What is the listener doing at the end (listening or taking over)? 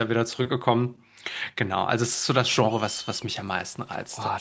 taking over